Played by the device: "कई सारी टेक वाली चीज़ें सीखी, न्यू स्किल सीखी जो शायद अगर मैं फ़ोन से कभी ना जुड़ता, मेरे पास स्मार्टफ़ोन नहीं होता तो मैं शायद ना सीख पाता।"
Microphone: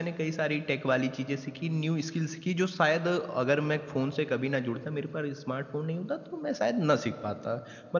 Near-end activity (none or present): none